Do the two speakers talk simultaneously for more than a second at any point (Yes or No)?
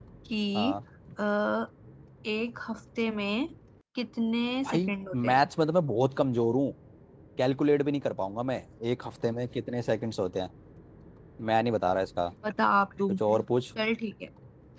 No